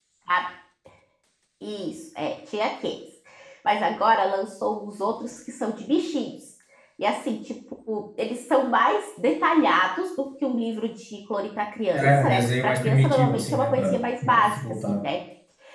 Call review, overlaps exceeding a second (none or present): present